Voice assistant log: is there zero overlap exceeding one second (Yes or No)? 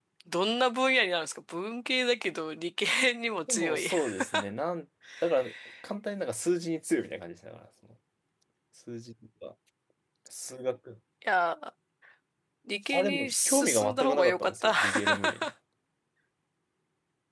No